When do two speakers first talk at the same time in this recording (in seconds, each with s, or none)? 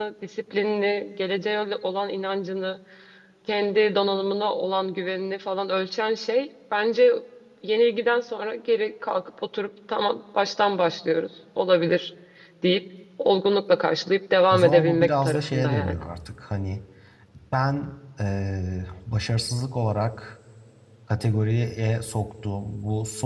14.5 s